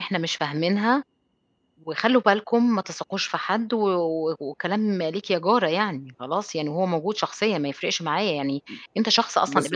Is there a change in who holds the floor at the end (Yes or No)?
Yes